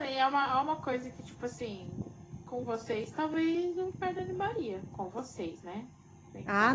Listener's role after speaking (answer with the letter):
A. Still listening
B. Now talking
B